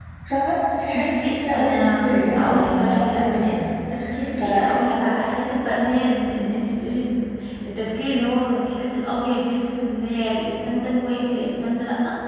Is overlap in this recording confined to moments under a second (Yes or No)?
No